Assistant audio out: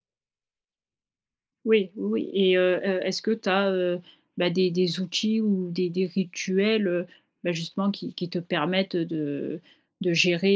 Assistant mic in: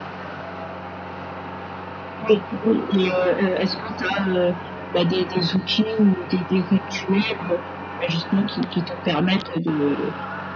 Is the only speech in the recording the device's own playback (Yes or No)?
Yes